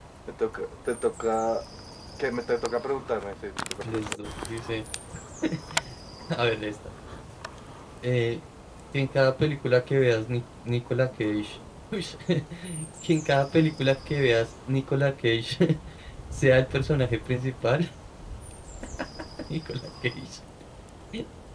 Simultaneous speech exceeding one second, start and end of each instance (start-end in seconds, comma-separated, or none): none